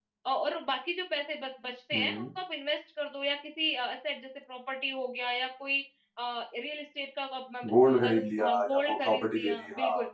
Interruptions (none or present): present